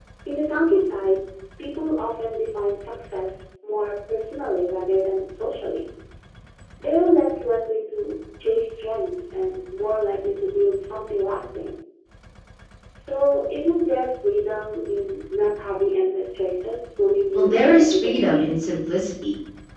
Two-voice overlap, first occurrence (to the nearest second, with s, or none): 17 s